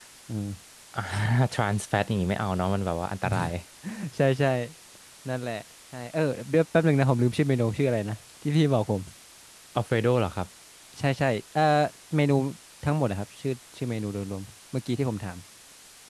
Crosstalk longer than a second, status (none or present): none